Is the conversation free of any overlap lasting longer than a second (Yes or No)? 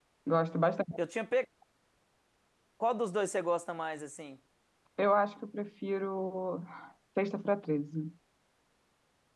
Yes